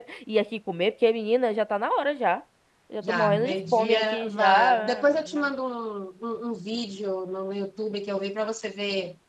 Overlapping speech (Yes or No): Yes